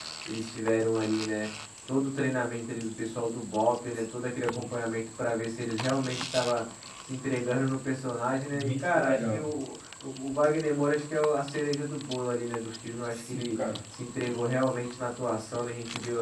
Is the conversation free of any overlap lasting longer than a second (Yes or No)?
No